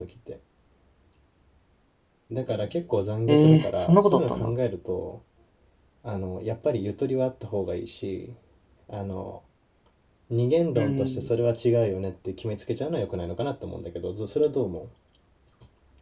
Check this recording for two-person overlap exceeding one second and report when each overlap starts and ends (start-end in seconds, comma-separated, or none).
3.3-4.5